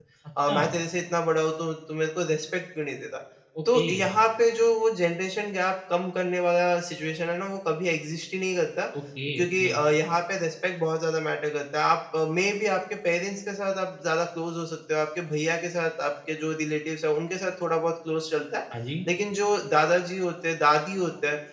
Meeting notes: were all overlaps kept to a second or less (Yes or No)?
Yes